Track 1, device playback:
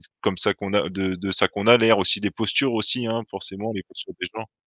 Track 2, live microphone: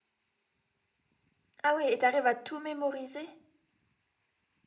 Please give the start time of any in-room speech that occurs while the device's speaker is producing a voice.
1.6 s

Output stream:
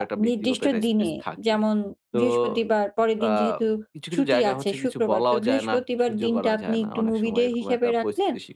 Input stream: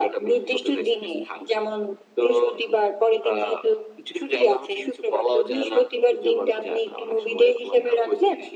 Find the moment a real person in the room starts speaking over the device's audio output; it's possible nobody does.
none

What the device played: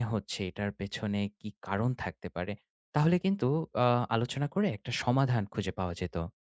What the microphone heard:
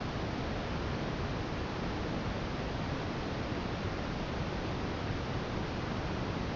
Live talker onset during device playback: none

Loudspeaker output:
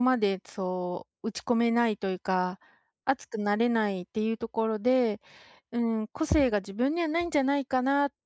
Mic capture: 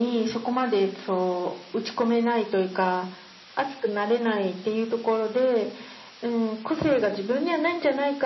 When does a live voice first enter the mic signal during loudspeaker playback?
none

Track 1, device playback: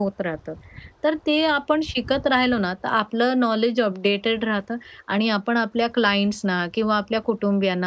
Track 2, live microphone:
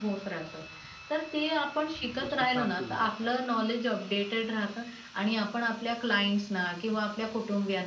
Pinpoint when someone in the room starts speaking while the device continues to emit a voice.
2.2 s

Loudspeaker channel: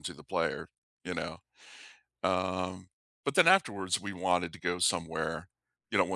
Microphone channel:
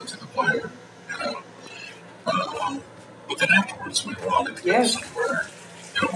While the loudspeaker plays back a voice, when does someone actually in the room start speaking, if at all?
4.6 s

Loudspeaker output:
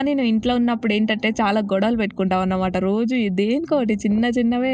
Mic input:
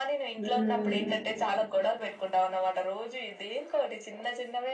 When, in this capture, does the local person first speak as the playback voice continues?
0.4 s

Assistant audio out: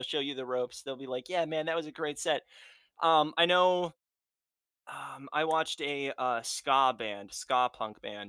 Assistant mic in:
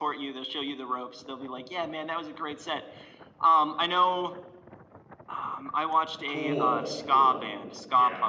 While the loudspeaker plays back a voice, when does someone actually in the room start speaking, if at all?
6.3 s

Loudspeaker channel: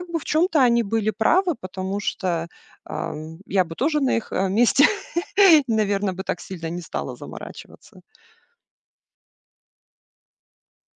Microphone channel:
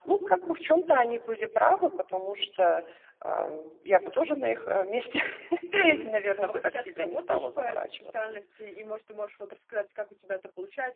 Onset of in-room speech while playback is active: 5.8 s

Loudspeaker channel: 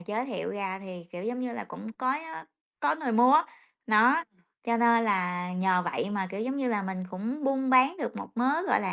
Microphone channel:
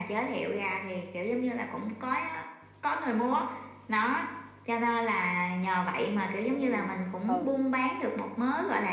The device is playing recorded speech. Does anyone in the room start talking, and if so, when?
6.2 s

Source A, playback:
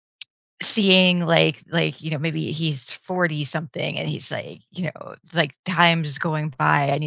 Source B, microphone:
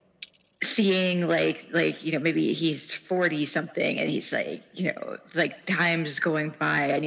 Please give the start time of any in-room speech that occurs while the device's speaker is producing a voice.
none

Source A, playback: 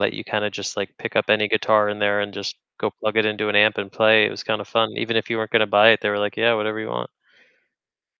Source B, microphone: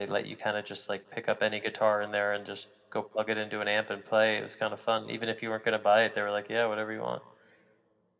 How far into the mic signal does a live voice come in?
none

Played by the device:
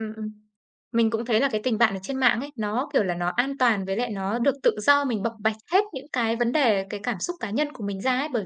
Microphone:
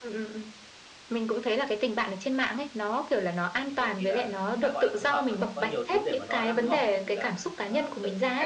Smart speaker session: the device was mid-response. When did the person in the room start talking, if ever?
3.5 s

